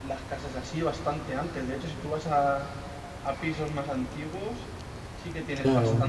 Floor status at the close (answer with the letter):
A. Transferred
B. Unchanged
B